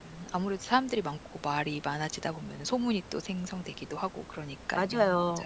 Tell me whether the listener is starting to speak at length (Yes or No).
Yes